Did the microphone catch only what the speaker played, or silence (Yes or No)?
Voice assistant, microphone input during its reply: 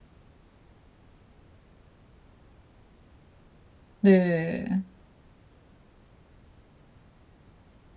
No